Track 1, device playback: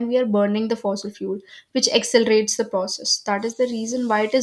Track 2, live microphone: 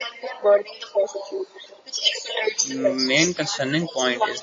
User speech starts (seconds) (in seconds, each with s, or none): 2.7 s